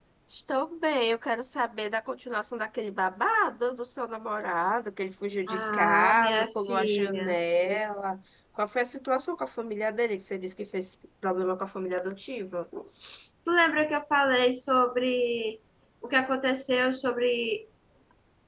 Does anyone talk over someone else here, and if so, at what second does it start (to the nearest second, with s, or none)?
5 s